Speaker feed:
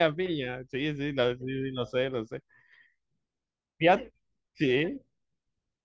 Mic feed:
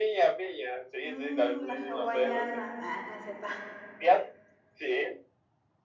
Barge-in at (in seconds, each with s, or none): 1.0 s